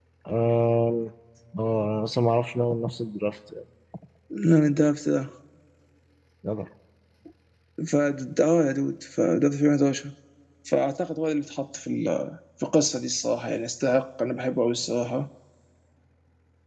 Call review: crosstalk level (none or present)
none